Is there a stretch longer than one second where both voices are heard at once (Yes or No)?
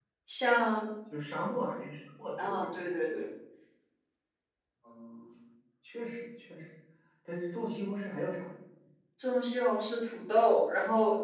No